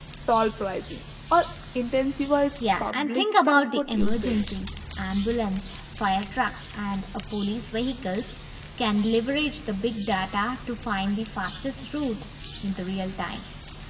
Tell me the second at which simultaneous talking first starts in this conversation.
2.6 s

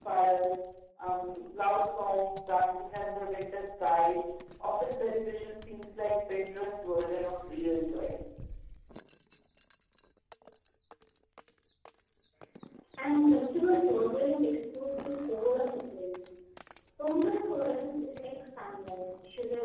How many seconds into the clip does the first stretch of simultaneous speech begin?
none

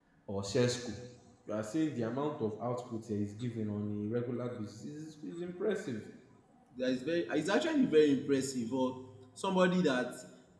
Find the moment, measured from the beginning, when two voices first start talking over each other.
none

